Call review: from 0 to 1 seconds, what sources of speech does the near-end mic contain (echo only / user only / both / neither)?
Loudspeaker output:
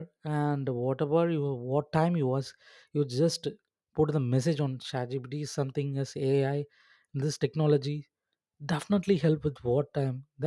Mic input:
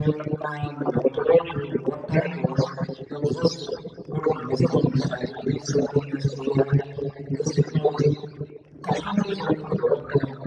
echo only